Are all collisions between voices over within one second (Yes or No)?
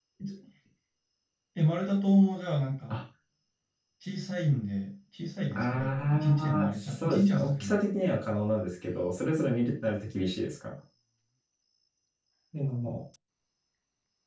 No